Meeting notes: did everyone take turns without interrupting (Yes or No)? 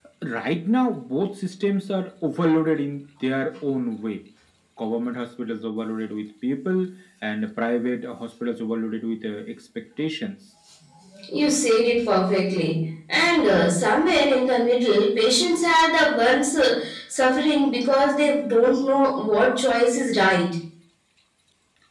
Yes